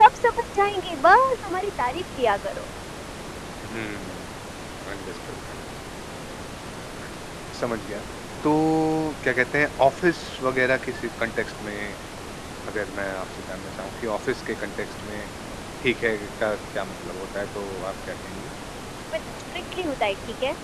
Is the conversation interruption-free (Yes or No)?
Yes